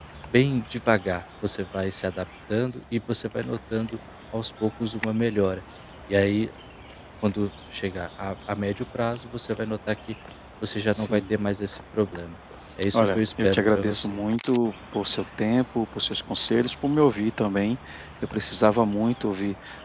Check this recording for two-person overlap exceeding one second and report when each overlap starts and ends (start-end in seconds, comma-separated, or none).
12.9-14.2